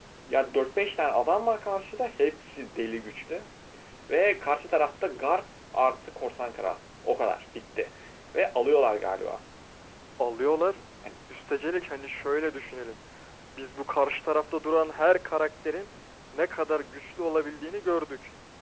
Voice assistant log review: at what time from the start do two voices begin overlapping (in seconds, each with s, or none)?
none